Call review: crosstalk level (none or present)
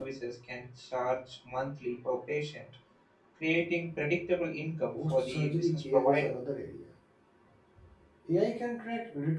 present